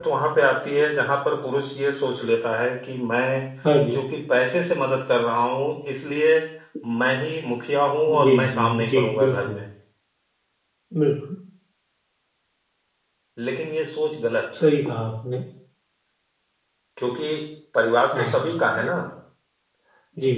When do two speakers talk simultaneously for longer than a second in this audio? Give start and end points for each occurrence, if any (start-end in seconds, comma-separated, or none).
8.1-9.6